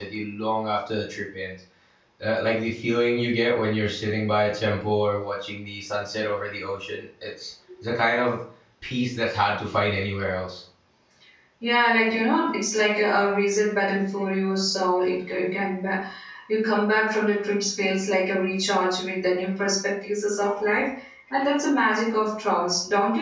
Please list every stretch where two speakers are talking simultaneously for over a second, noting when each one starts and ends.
none

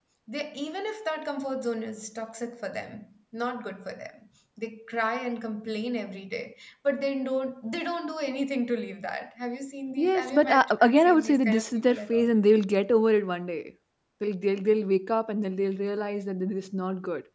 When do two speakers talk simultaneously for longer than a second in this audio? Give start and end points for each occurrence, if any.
10.0-12.3

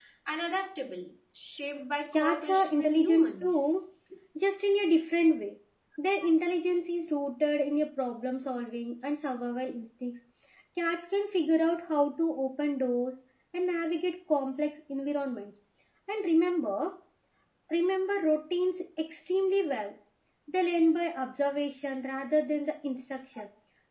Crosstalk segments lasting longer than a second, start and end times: 2.1-3.6

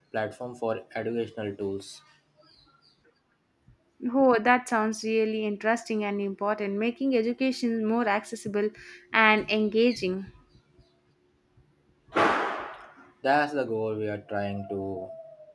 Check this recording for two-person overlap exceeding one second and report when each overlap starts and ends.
none

